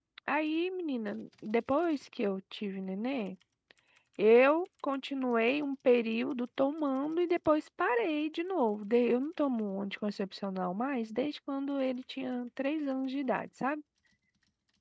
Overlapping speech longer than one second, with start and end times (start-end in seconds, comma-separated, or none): none